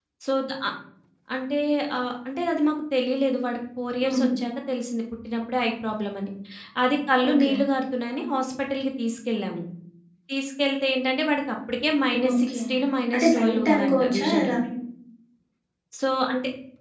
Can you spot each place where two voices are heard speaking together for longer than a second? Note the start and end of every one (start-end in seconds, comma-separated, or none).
13.1-14.5